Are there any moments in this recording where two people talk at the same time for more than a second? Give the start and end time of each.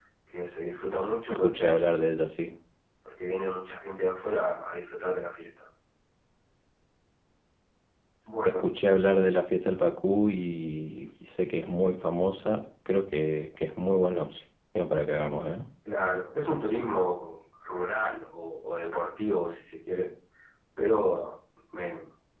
none

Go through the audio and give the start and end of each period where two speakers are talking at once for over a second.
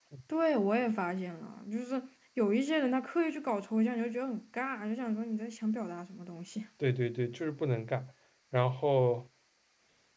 none

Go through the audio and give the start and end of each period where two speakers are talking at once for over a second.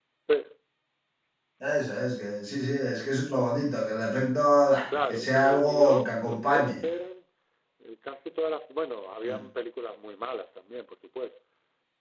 5.1-6.8

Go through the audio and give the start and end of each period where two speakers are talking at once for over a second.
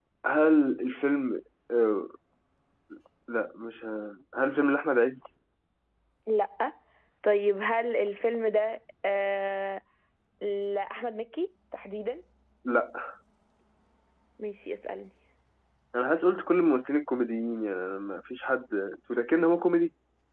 none

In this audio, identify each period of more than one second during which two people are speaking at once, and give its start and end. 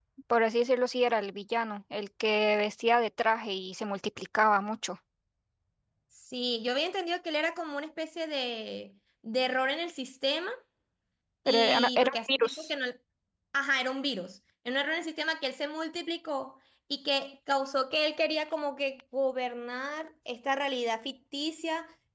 11.5-12.7

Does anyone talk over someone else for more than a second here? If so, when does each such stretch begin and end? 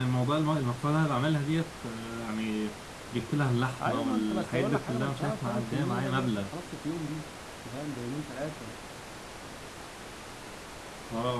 3.8-6.5

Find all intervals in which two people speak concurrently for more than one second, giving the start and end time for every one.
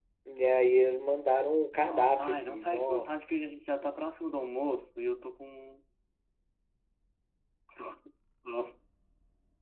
1.8-3.1

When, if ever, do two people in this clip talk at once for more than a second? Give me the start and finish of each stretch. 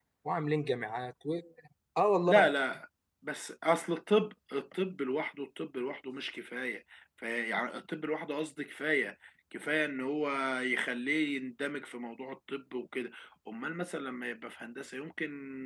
none

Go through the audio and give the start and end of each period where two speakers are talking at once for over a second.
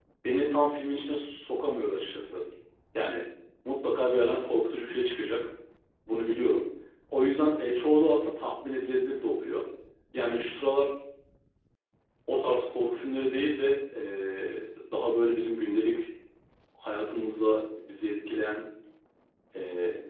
none

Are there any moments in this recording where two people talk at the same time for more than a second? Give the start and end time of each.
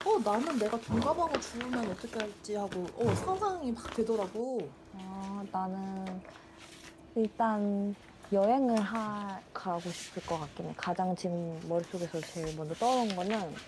none

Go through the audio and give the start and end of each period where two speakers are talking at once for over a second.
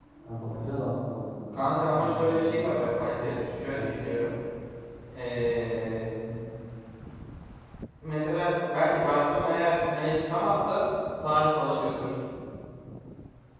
1.5-2.8

